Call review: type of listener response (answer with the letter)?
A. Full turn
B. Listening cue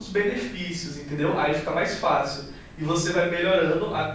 B